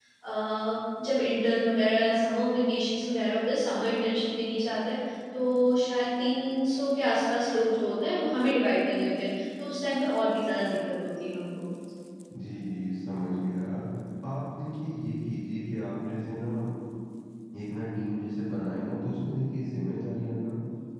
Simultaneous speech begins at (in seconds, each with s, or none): none